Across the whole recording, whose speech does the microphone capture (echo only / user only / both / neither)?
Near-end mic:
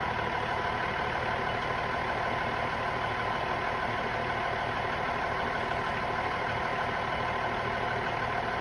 neither